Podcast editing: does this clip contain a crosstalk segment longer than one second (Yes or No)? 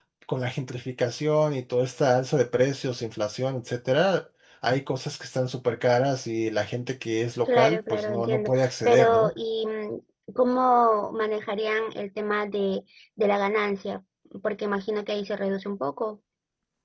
Yes